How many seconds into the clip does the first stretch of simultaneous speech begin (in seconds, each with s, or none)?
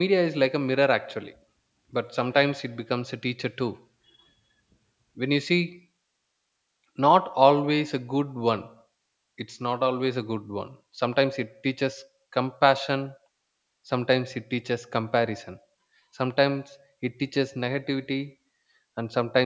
none